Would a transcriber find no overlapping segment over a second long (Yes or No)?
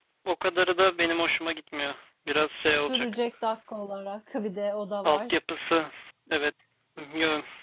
Yes